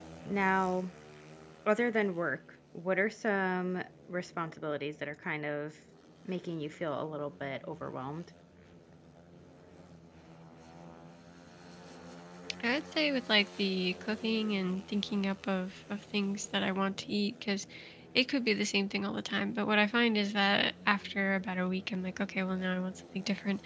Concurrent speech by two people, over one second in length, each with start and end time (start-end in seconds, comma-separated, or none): none